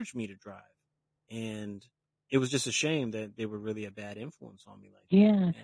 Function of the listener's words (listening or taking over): taking over